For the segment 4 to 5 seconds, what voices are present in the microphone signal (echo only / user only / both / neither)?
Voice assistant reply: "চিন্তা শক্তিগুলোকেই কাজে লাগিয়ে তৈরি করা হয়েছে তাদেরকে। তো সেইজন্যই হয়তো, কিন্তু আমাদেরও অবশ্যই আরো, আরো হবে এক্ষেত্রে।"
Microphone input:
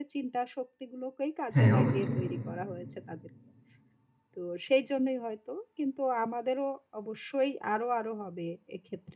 echo only